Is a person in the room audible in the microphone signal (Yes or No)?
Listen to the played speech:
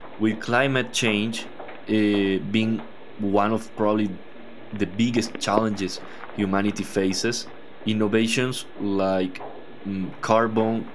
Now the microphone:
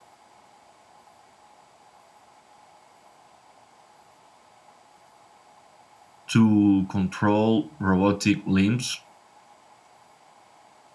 Yes